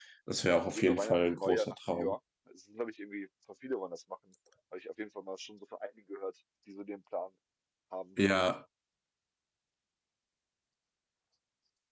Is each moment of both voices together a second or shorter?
No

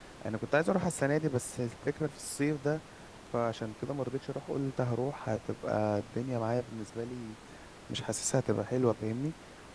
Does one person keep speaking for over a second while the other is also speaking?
No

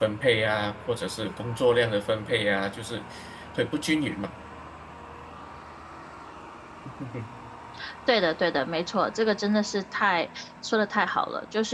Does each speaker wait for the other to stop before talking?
Yes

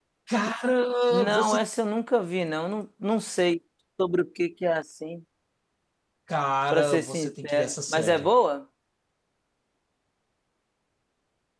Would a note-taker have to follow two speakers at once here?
Yes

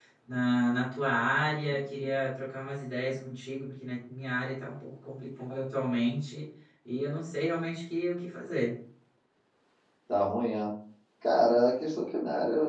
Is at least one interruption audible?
No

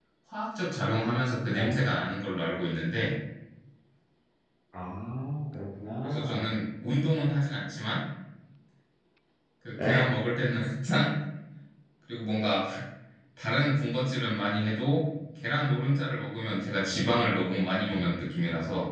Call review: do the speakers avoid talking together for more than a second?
Yes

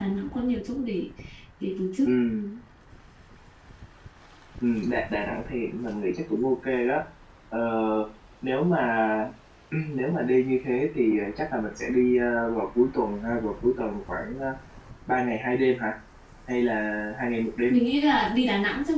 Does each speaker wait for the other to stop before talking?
Yes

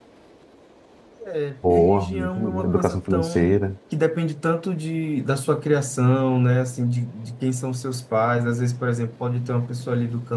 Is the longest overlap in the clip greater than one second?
Yes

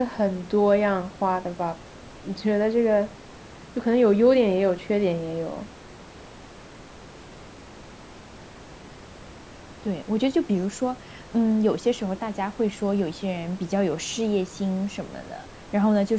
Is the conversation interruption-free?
Yes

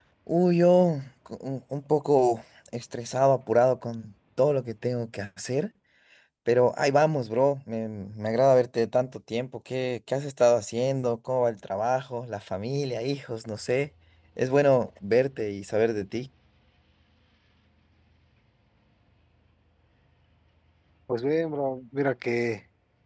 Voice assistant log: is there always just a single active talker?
Yes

